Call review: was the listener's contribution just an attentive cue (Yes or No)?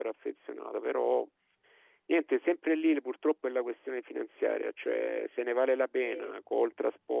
Yes